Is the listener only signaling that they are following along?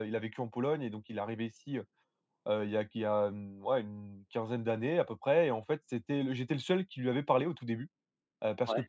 Yes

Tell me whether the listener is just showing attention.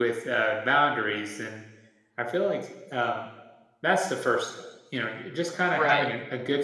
Yes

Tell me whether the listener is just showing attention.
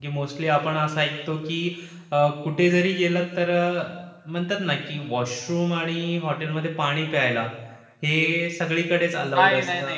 No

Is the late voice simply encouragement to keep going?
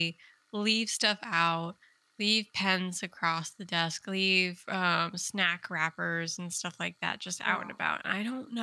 Yes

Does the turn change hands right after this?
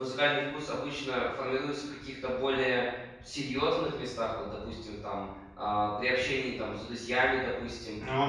No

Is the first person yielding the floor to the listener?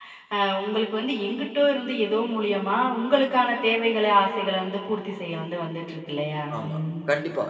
Yes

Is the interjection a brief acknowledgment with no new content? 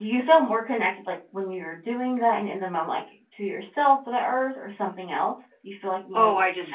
No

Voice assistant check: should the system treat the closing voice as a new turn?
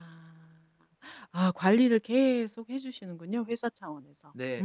Yes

